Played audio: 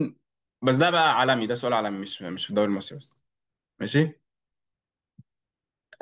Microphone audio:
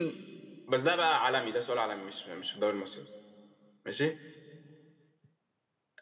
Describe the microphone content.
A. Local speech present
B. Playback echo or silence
B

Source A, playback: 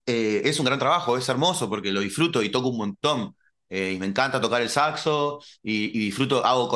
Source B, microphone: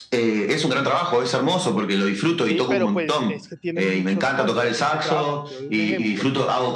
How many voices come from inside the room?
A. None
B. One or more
B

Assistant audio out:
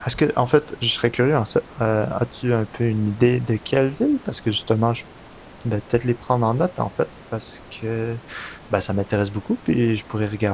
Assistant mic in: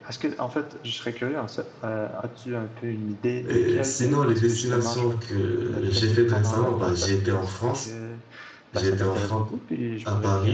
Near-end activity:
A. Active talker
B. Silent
A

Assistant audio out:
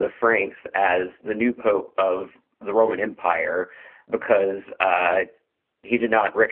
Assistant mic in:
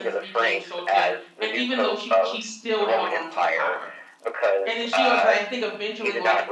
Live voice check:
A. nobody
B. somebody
B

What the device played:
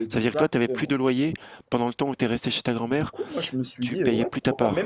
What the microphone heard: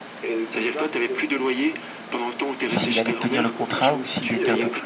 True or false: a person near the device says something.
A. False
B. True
B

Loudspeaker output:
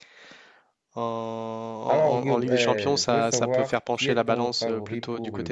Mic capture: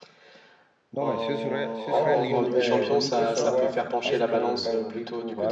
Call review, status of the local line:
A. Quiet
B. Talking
B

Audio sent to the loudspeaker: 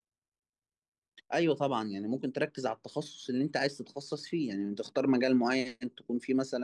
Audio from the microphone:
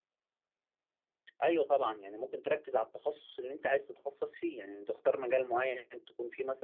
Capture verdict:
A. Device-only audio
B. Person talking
A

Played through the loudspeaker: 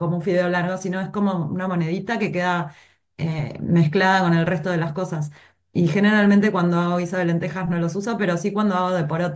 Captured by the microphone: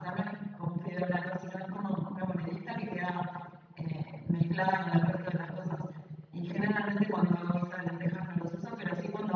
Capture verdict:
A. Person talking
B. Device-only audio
B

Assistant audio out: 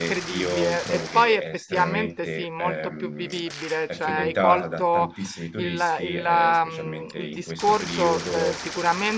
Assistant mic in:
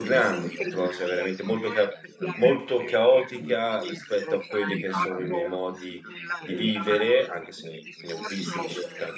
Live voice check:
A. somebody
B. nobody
A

